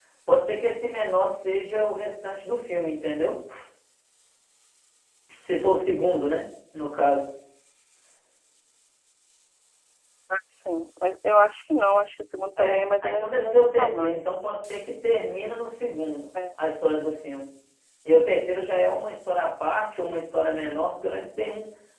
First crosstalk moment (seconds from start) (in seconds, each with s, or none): 12.6 s